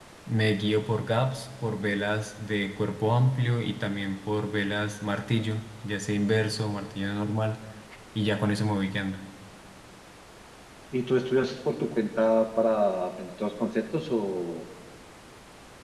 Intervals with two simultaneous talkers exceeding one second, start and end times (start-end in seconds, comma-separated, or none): none